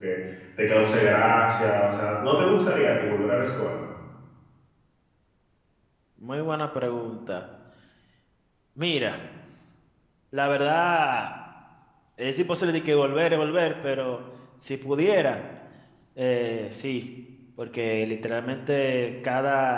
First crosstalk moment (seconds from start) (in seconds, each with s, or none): none